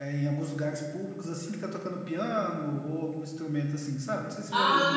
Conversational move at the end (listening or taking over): taking over